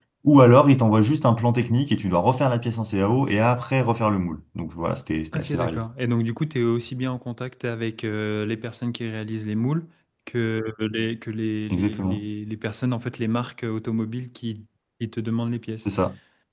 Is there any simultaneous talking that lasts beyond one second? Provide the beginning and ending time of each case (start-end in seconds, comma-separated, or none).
none